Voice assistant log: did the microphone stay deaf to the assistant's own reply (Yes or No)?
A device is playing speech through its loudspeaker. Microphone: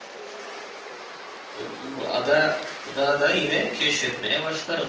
Yes